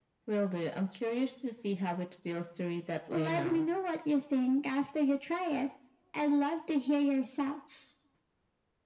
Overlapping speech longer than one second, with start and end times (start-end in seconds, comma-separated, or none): none